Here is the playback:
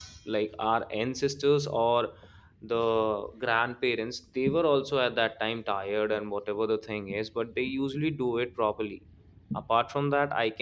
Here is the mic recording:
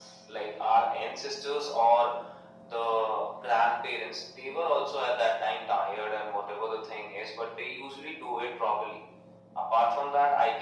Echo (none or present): present